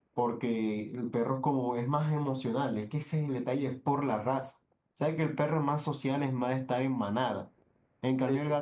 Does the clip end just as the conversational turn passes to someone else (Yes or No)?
No